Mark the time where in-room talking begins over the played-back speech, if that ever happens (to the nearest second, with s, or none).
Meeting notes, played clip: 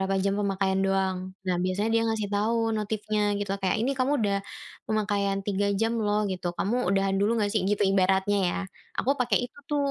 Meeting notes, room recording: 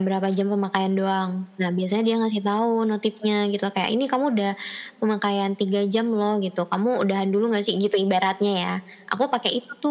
none